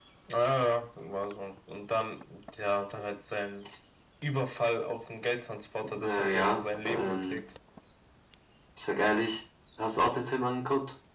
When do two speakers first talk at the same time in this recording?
6.0 s

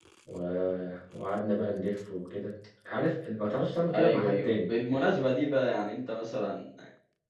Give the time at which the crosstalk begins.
3.9 s

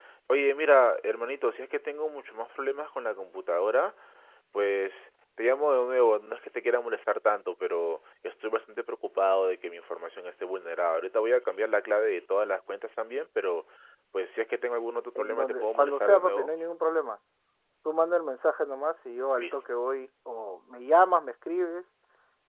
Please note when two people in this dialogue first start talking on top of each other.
15.2 s

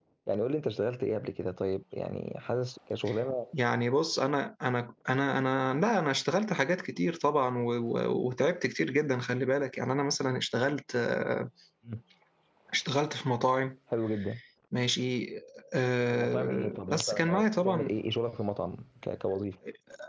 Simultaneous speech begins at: 16.1 s

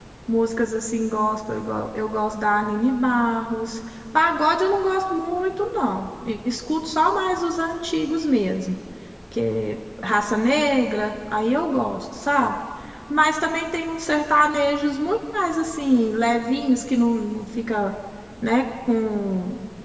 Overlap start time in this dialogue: none

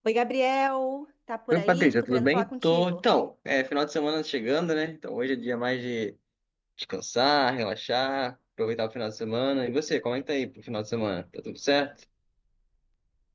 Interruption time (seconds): 1.5 s

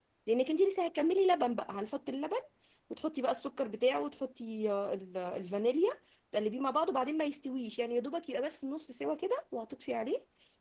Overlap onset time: none

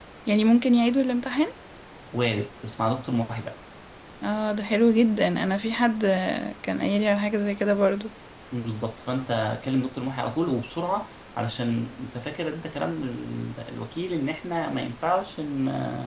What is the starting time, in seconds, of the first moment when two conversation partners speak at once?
none

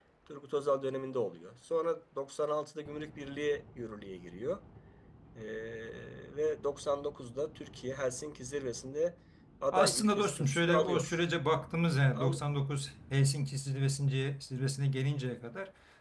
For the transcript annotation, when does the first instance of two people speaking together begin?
9.7 s

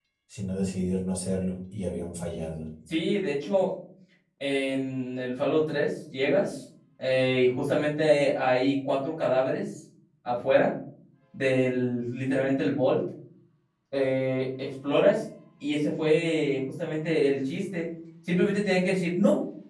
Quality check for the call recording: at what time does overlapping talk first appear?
none

